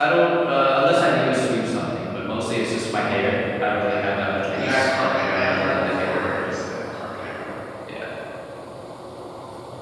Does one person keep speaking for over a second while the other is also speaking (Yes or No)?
Yes